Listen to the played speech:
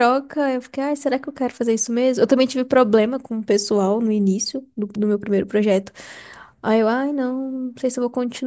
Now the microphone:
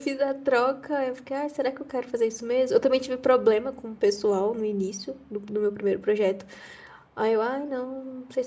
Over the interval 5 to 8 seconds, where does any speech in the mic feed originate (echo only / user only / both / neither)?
echo only